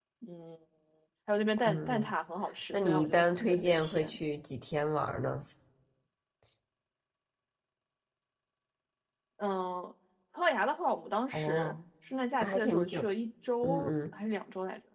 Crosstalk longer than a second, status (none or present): present